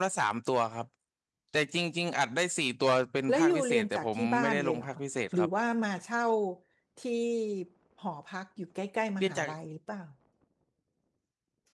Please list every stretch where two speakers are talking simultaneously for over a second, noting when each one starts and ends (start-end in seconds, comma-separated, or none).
3.3-4.9